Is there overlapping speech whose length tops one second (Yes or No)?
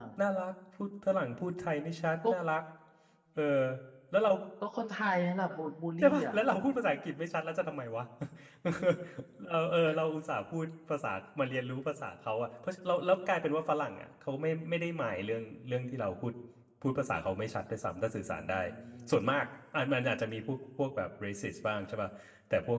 No